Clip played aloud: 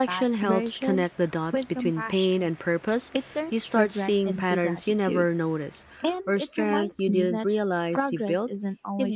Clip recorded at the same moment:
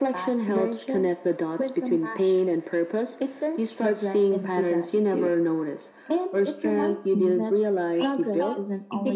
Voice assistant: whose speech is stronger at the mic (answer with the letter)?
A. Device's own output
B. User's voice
A